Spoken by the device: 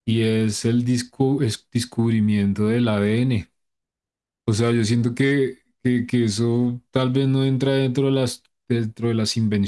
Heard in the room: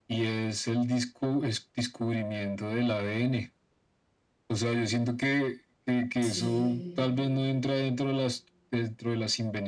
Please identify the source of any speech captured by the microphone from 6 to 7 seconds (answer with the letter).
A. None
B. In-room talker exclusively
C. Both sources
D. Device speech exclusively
C